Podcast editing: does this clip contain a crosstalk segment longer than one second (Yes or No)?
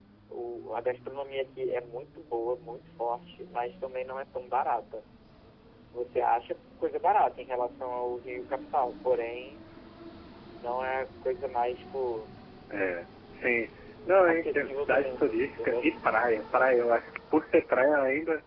Yes